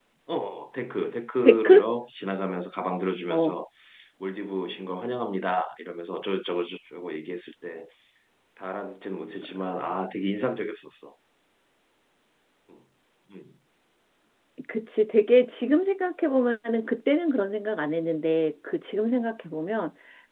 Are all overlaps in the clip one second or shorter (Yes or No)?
Yes